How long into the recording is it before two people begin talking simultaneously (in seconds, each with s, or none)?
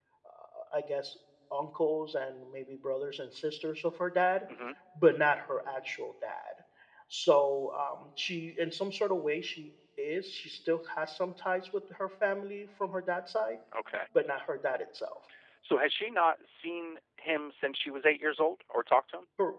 none